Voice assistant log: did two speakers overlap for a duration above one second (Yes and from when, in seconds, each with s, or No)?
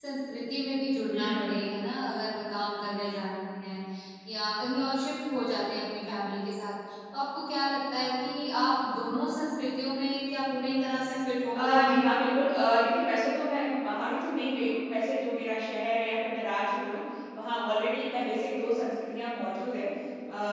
No